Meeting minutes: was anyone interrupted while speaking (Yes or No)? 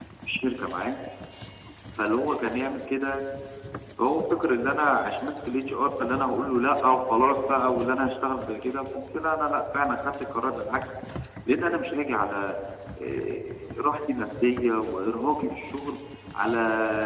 No